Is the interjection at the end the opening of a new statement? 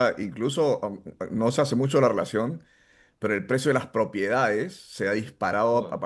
No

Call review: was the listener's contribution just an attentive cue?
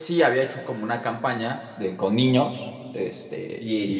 Yes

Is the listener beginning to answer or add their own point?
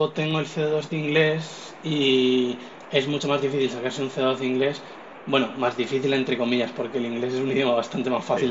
No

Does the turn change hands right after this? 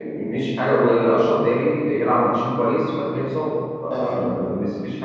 No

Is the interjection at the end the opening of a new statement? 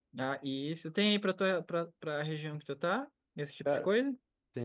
Yes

